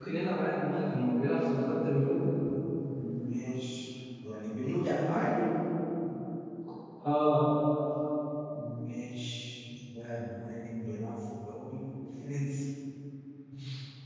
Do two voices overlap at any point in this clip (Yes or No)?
No